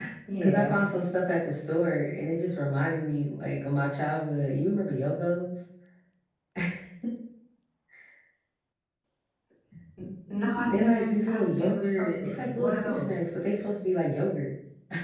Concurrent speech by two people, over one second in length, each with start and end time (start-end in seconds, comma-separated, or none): 10.7-13.2